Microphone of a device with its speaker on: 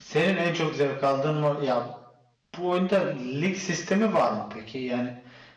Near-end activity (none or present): present